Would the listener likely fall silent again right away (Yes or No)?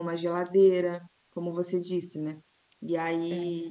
Yes